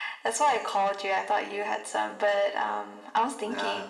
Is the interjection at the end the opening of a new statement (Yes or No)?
No